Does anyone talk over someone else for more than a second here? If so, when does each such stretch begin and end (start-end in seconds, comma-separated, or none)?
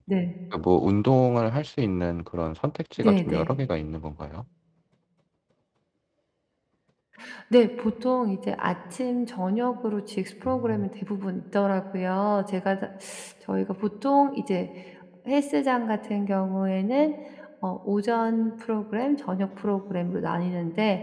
none